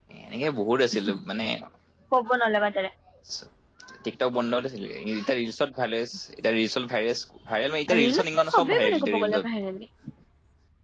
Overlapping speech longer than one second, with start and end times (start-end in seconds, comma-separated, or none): 8.0-9.5